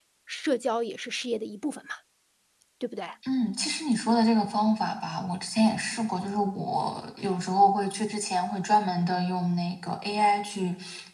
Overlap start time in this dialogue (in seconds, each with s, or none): none